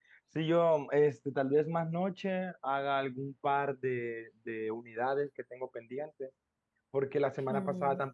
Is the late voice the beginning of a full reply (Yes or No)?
No